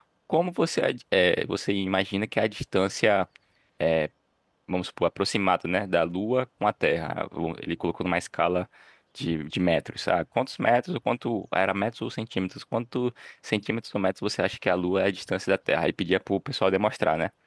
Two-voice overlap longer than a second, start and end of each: none

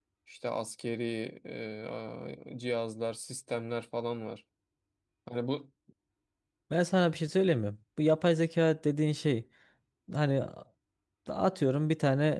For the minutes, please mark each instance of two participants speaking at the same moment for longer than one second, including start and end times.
none

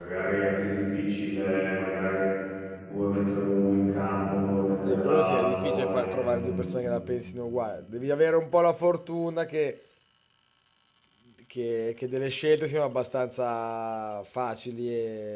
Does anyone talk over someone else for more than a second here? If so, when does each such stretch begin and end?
4.8-6.6

